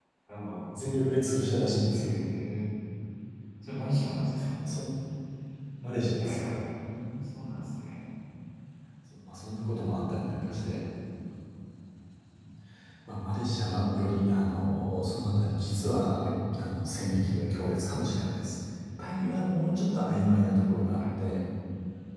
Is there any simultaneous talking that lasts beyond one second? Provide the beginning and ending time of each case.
none

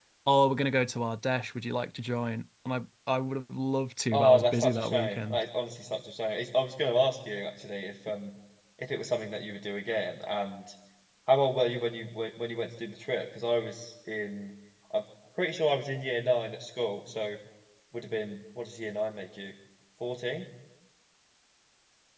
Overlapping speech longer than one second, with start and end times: 4.1-5.4

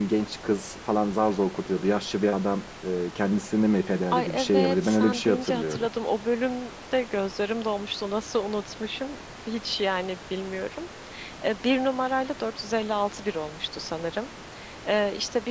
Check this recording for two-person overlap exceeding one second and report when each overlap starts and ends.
4.1-5.9

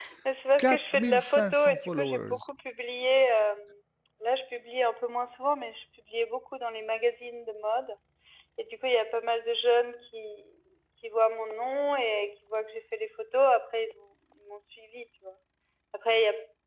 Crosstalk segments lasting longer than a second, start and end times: 0.6-2.5

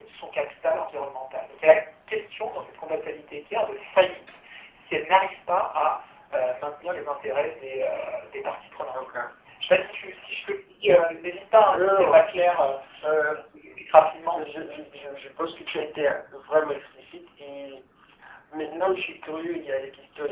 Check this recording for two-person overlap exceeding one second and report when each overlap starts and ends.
none

